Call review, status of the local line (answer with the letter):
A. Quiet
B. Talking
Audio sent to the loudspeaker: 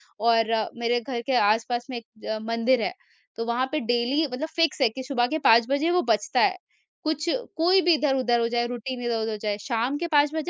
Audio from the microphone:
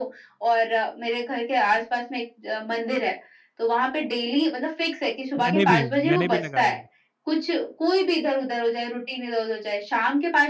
B